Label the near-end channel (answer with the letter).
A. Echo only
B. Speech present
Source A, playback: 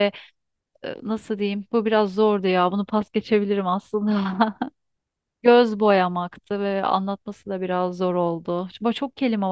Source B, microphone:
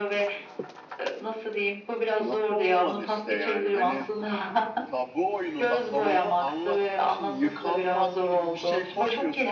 B